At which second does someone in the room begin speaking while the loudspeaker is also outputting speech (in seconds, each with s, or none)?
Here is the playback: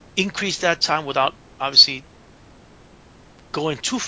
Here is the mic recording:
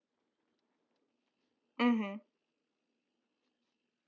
1.8 s